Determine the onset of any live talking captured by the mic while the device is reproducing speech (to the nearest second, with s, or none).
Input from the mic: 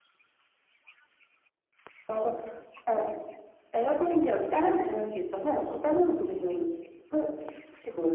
none